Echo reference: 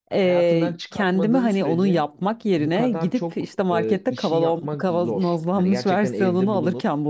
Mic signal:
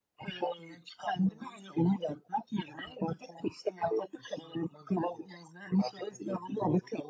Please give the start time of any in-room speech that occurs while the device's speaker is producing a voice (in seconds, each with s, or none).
none